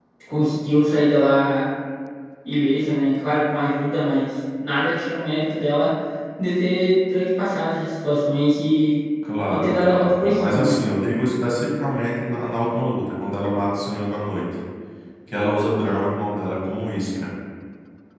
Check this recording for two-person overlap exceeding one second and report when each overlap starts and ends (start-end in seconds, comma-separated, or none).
9.5-10.8